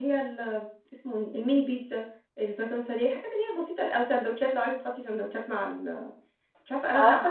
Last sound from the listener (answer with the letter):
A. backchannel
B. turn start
B